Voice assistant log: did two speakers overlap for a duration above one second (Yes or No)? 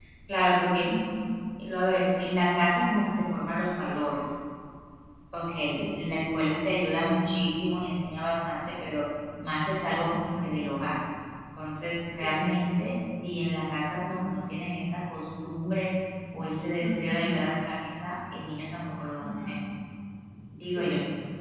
No